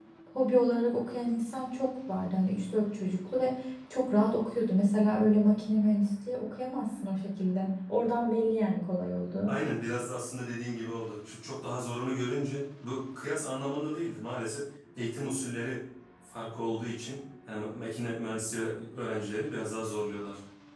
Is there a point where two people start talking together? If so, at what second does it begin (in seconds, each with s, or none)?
none